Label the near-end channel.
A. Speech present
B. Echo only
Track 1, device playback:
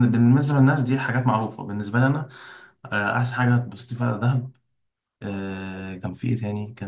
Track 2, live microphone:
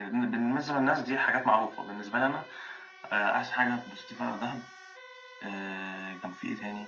B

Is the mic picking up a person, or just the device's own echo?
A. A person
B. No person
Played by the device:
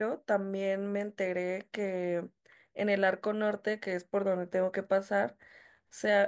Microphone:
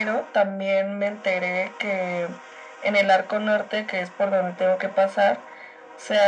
B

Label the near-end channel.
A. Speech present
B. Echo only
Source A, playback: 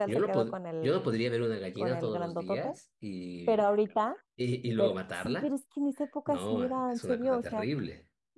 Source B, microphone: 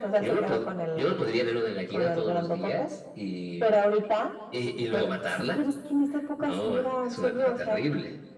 B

